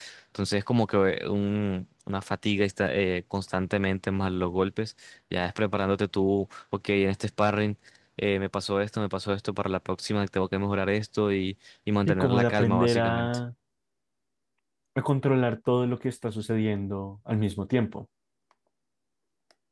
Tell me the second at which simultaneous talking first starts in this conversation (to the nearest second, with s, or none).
12 s